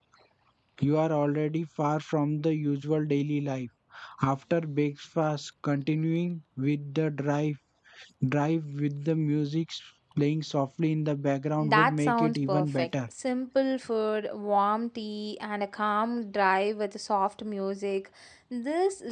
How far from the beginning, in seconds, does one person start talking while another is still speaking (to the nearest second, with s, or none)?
12 s